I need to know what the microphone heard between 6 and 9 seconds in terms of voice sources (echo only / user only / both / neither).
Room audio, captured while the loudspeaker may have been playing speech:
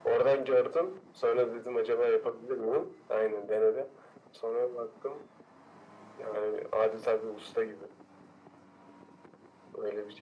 echo only